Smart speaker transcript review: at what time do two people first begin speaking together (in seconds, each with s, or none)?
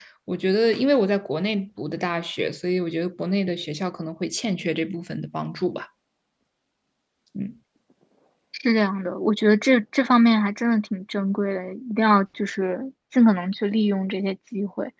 none